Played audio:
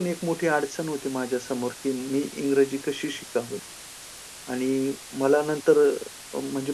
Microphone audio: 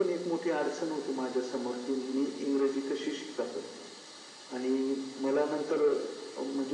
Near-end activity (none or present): none